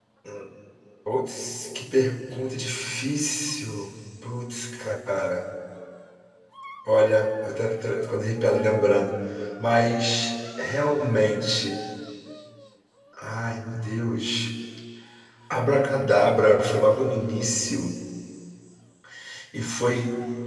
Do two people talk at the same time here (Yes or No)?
No